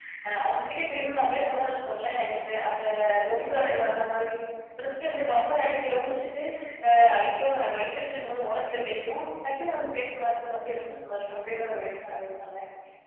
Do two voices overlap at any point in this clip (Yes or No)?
No